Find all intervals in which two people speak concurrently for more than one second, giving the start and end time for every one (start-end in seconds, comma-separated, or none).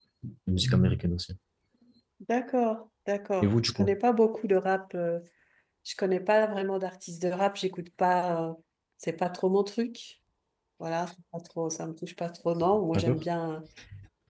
none